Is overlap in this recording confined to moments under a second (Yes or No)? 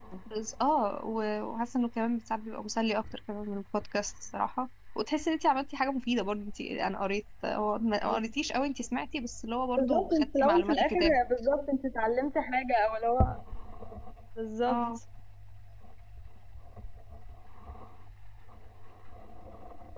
No